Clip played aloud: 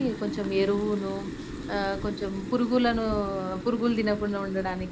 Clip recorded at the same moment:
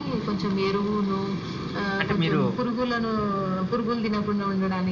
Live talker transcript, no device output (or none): అంటే మీరు